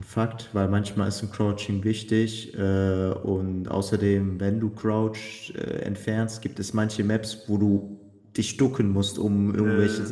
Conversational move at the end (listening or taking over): listening